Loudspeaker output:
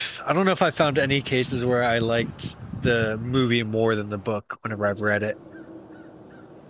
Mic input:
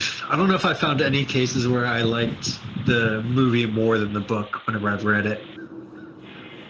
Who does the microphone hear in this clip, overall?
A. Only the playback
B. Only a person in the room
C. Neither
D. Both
A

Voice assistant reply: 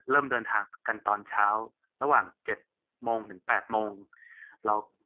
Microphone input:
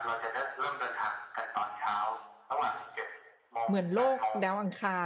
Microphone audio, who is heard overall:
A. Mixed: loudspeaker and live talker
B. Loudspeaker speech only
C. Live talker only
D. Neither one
A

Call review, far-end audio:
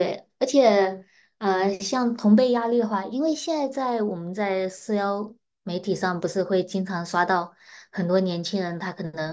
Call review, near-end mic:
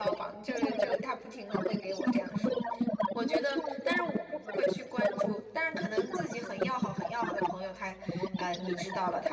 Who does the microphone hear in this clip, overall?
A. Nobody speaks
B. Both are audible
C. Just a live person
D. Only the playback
B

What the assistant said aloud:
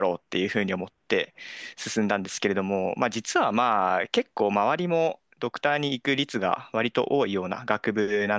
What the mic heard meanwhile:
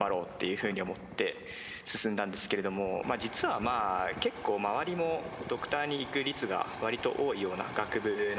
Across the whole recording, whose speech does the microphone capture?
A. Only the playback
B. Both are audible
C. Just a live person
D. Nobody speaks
A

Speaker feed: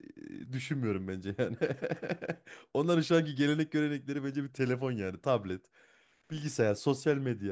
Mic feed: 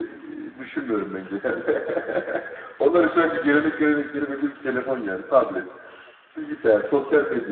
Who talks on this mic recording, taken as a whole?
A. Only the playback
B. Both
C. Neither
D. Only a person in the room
A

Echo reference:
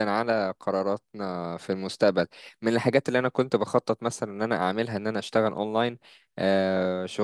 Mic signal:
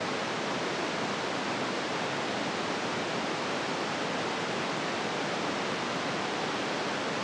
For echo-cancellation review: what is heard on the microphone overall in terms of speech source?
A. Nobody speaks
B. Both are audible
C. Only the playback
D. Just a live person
A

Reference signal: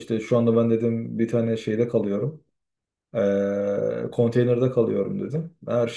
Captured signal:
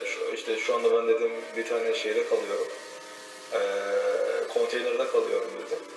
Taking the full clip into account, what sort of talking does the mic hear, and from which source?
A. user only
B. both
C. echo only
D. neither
C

